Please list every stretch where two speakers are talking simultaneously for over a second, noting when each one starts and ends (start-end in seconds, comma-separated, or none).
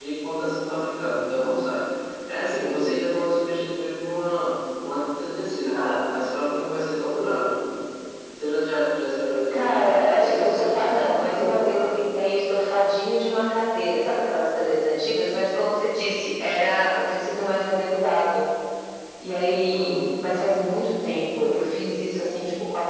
9.5-11.9